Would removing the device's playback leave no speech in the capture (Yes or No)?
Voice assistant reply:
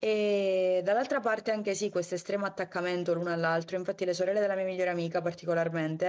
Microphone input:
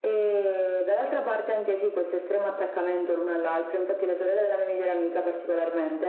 Yes